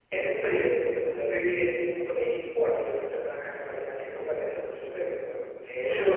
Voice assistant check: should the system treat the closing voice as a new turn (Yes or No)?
No